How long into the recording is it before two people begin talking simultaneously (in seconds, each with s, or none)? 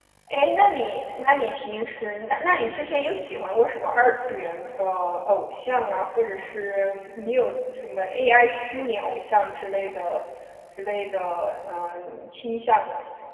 none